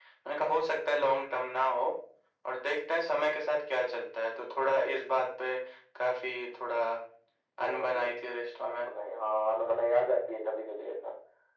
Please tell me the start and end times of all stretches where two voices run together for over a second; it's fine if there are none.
none

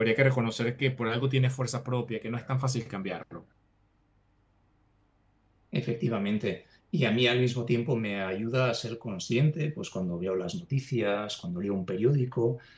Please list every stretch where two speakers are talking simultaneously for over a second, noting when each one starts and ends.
none

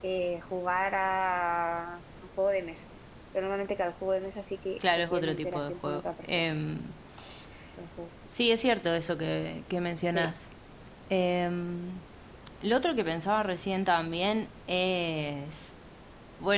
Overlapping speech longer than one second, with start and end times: 4.8-6.4

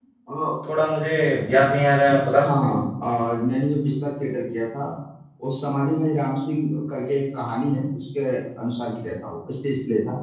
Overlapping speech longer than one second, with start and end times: none

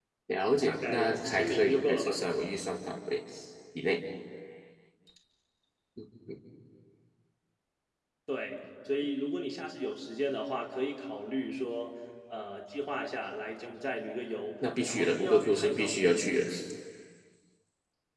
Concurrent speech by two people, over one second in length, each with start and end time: 0.7-2.2, 14.8-16.4

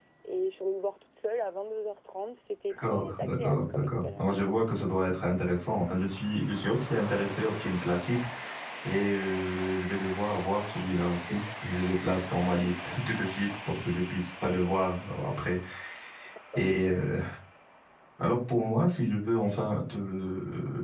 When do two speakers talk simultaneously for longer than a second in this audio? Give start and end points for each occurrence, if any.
2.8-4.3

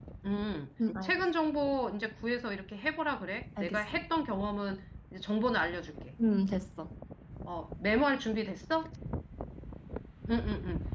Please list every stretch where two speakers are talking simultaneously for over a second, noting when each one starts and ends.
none

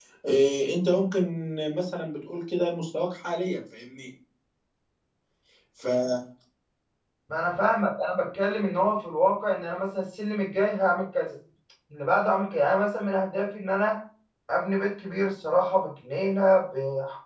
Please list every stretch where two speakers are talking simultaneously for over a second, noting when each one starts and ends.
none

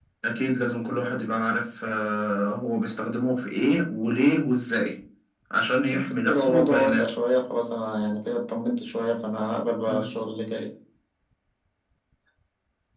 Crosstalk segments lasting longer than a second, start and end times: 5.9-7.1

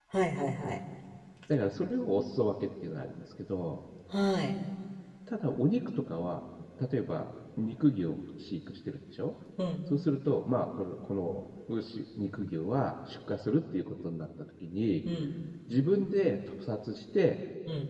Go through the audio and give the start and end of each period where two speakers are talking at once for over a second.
none

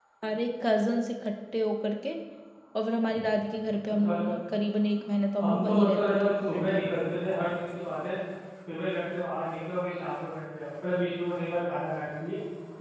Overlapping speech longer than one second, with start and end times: 5.4-6.9

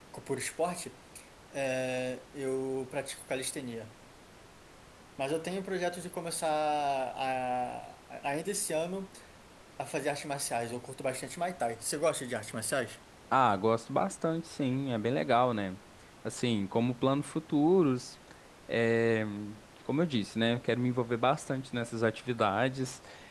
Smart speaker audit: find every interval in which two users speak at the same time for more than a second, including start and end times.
none

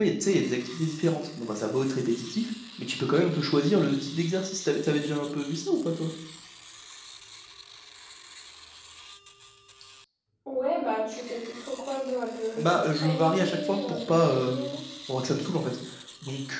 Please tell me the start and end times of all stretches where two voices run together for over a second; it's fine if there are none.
12.6-14.8

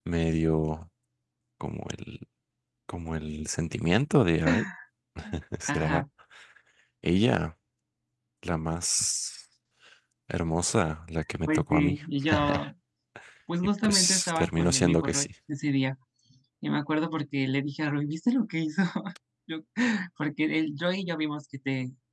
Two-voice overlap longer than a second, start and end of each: 13.8-15.3

